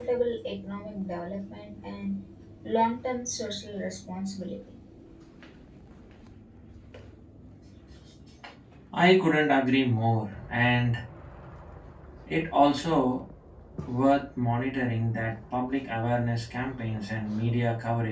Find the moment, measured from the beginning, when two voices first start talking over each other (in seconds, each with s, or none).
none